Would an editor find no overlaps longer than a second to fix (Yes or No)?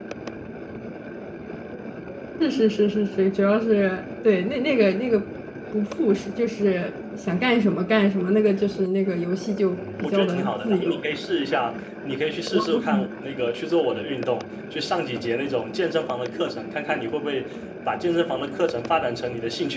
No